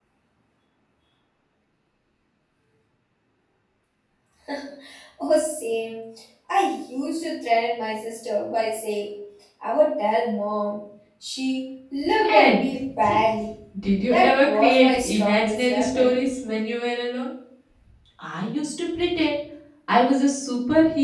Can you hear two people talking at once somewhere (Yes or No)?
Yes